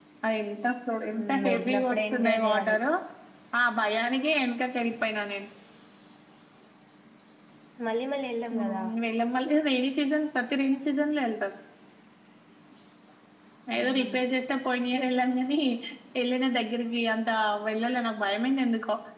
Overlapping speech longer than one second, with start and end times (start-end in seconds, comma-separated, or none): 1.2-2.8